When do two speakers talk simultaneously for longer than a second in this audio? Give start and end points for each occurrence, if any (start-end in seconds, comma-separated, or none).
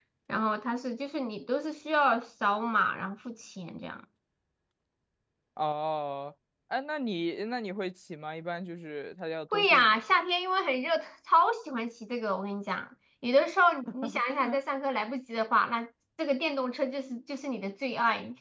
none